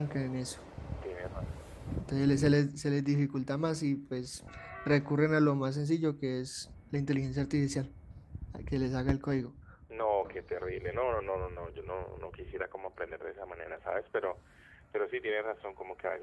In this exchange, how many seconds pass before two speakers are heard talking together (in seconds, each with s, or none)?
none